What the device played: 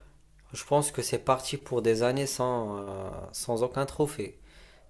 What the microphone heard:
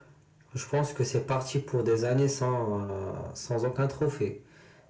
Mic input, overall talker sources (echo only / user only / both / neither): echo only